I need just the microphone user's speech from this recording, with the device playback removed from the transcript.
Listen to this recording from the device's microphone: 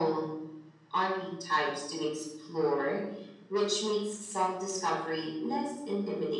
none

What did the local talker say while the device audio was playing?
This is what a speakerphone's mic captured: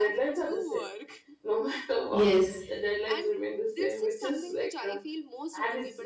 Yes.

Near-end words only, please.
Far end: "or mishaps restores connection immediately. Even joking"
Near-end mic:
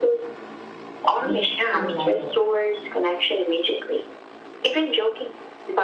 week feel lighter.

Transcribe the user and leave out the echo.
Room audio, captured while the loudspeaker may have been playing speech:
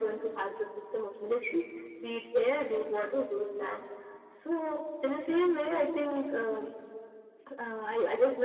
none

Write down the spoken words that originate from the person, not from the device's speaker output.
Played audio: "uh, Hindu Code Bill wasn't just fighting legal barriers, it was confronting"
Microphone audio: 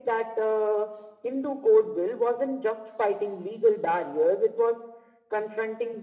none

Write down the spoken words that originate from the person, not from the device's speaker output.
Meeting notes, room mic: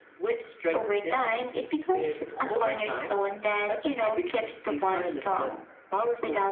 It also allows,

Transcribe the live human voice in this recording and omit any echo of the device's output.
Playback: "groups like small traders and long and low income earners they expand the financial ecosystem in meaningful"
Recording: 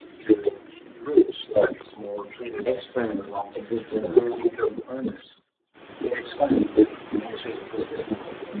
expand existing ones.

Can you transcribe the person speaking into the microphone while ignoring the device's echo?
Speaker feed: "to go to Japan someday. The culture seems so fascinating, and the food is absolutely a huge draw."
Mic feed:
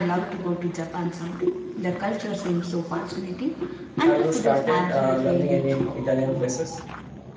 Have you started uh, learning any Italian phrases?

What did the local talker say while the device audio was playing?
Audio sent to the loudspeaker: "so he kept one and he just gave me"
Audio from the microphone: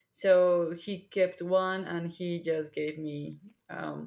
none

